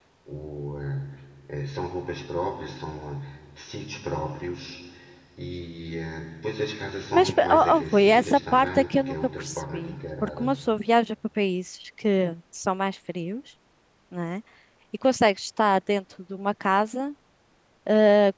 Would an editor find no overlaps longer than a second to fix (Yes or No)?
No